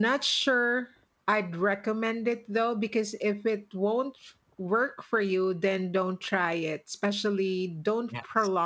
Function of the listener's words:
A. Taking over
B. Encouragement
B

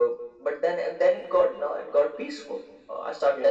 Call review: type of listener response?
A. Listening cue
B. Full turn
A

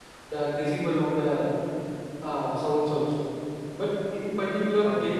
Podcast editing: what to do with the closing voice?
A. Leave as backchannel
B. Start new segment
A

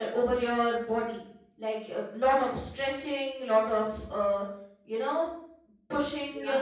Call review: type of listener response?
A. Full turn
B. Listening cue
B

